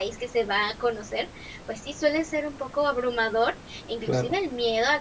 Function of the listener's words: listening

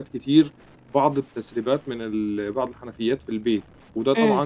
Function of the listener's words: listening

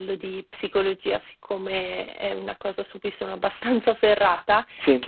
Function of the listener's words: listening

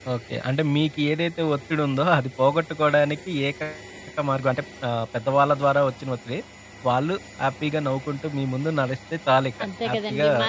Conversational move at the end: taking over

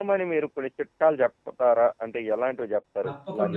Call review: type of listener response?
taking over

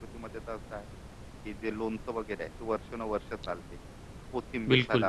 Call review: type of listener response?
listening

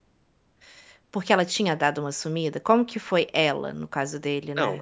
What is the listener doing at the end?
taking over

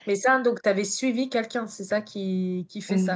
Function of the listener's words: taking over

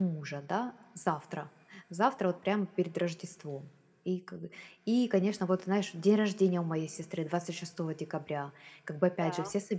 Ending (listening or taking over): listening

